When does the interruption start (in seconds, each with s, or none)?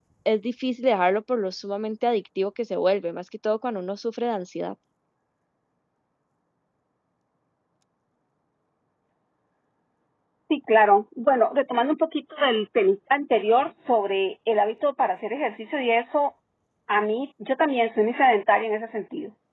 none